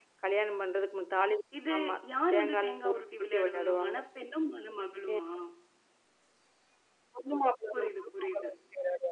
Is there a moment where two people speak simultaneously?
Yes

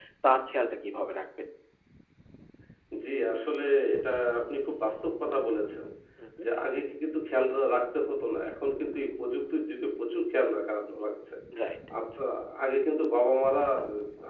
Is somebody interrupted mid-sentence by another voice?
No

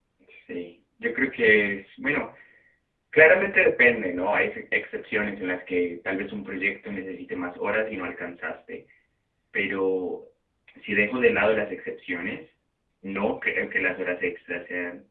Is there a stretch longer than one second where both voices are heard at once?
No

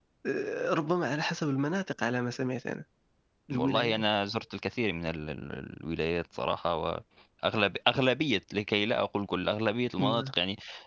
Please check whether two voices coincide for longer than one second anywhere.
No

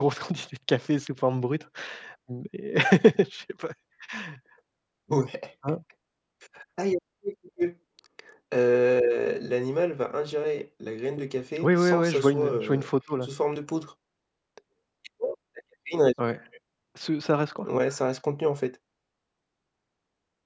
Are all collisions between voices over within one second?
No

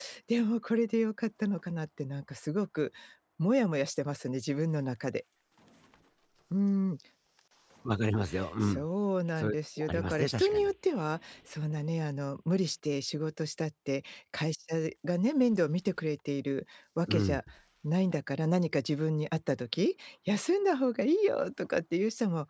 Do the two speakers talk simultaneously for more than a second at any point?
Yes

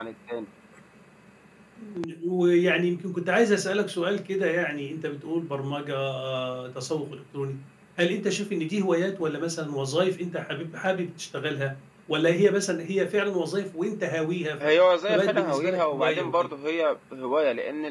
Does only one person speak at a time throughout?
No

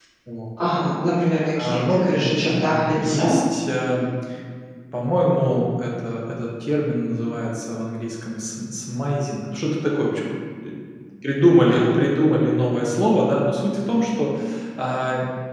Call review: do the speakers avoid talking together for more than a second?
No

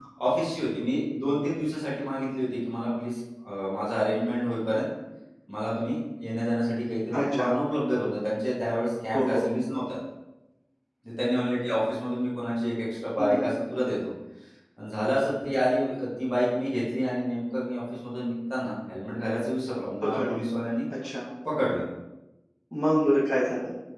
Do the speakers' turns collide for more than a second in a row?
No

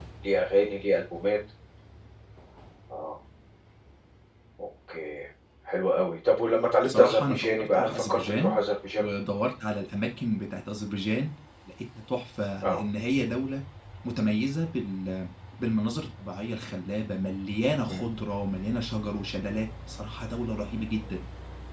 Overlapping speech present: Yes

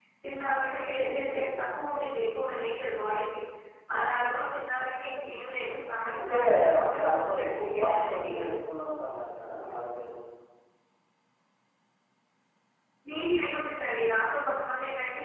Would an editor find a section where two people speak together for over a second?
Yes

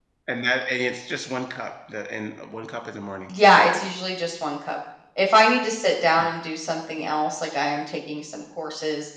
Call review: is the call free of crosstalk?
Yes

